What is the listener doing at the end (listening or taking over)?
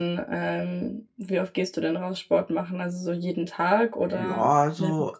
taking over